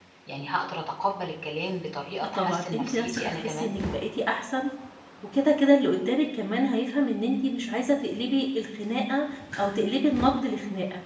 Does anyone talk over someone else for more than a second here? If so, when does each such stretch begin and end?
2.3-3.7

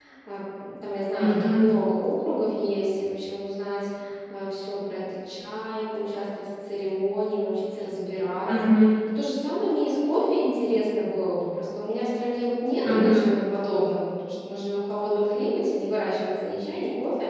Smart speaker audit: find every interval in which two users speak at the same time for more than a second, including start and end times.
none

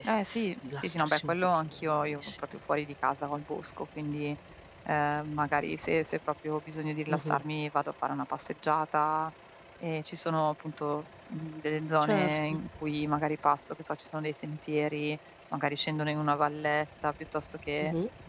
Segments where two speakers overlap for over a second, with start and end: 0.8-2.3

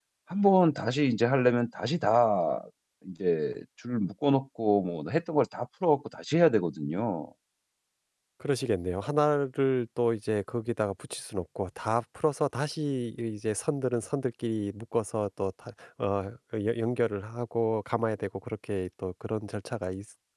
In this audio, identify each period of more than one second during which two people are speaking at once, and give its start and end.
none

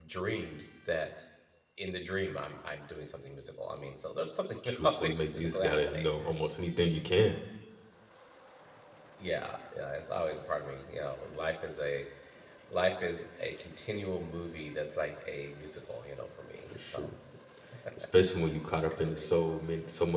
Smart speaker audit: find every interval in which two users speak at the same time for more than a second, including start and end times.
4.7-6.1

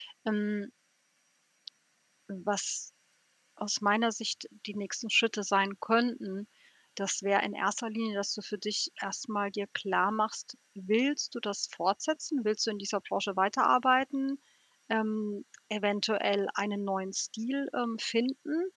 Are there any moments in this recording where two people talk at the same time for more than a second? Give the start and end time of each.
none

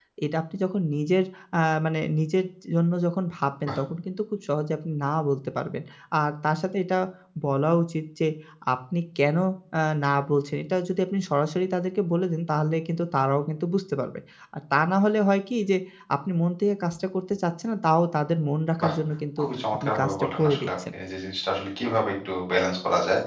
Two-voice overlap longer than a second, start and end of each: 19.4-20.7

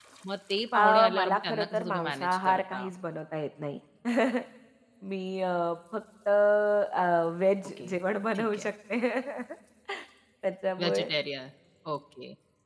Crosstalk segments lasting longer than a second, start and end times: 0.7-2.9

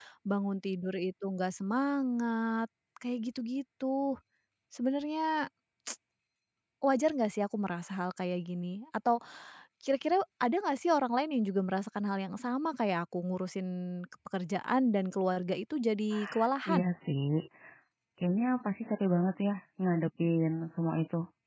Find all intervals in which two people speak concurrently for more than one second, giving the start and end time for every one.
none

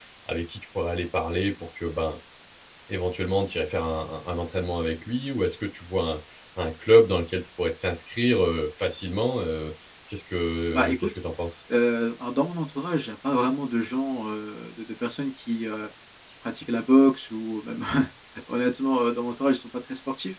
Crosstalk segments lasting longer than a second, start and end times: none

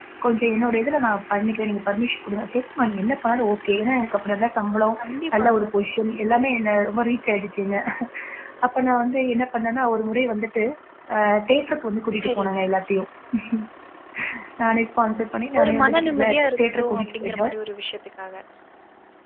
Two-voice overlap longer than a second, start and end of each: 15.6-17.5

